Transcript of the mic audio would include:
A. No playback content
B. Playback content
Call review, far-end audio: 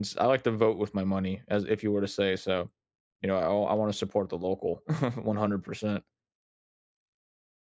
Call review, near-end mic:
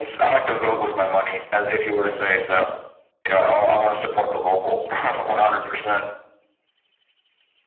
B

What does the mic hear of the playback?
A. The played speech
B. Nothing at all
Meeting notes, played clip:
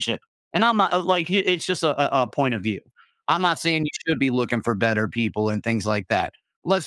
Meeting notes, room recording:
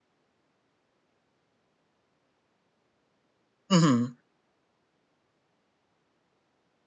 B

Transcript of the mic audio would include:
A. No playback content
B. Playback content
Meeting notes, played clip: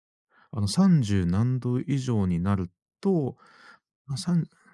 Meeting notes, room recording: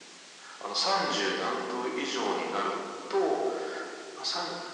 B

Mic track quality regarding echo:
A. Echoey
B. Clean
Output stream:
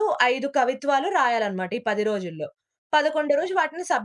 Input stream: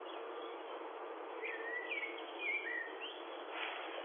B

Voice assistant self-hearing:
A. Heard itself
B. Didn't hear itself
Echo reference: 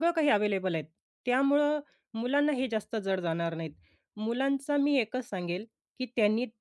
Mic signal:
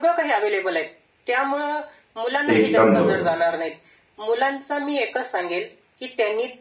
A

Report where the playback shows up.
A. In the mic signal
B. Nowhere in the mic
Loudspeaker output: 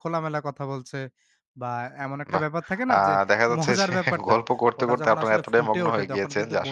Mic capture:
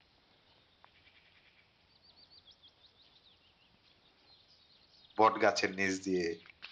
B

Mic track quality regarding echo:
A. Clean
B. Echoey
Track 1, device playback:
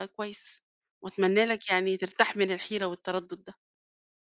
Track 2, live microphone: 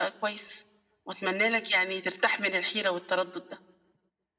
B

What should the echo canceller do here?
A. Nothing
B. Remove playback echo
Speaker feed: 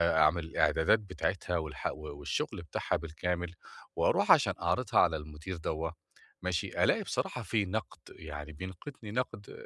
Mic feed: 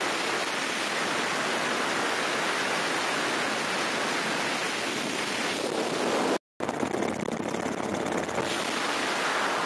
A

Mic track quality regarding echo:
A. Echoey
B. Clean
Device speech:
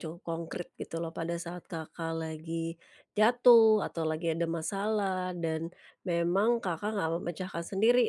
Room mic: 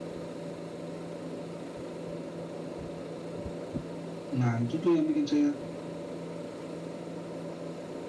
B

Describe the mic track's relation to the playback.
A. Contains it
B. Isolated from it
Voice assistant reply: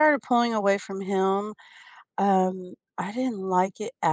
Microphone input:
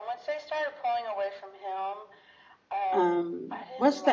A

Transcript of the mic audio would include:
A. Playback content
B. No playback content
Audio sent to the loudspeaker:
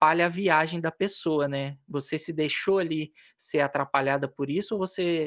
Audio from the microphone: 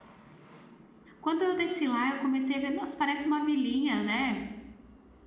B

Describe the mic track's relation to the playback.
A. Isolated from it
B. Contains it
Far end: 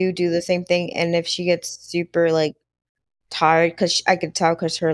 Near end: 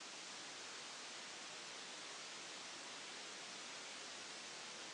A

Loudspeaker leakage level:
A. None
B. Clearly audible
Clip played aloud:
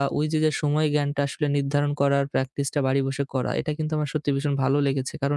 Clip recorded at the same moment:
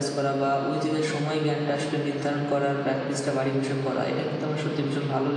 B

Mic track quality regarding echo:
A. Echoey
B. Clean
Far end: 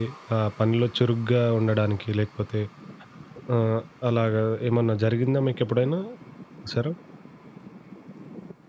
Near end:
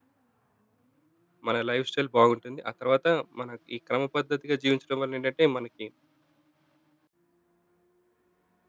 B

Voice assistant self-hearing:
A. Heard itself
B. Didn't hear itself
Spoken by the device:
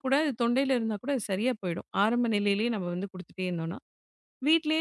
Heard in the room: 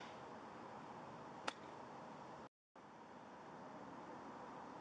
B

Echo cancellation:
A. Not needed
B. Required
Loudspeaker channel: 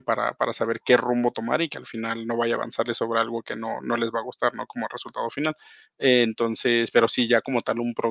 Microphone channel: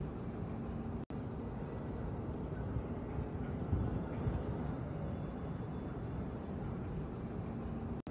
A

